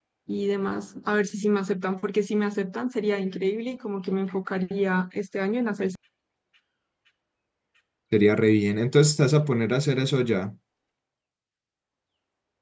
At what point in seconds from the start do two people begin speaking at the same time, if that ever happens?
none

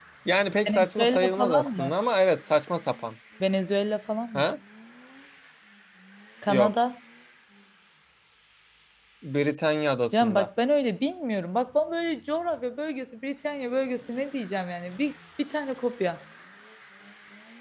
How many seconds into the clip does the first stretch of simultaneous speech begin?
0.7 s

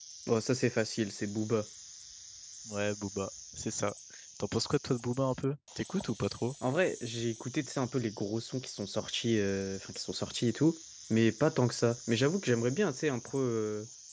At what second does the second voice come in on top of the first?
none

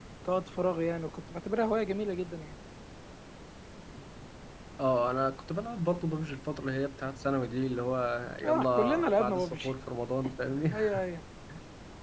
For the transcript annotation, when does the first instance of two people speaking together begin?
8.4 s

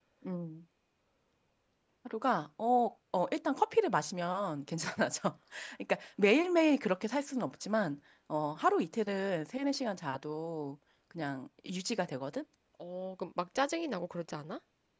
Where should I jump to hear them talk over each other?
none

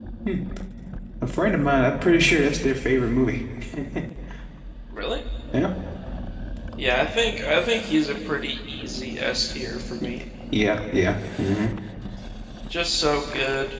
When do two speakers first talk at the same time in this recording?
none

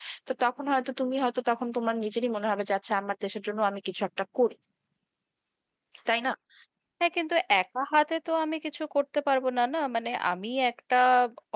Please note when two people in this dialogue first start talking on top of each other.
none

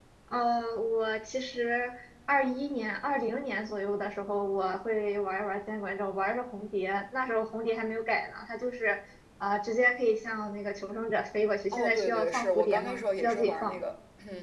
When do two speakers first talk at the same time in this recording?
11.7 s

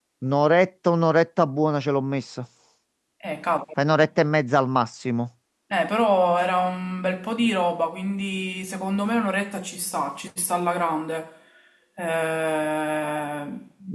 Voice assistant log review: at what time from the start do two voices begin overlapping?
none

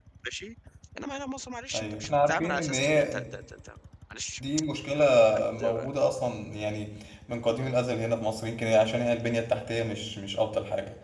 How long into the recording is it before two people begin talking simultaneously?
1.7 s

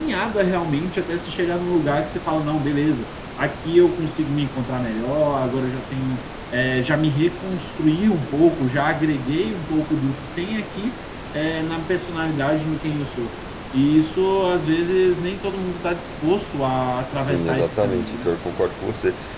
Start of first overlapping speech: 17.1 s

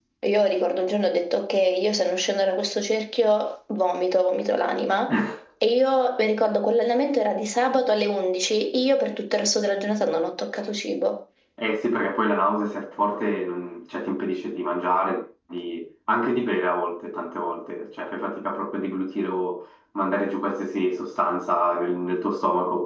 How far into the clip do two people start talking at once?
none

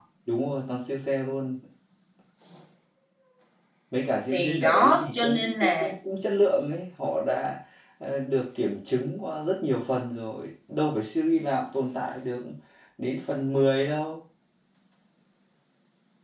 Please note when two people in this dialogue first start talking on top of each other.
4.3 s

